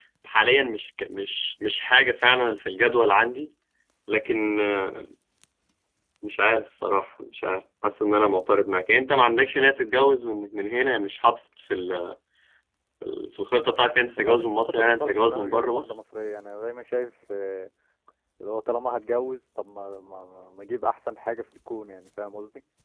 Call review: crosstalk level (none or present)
present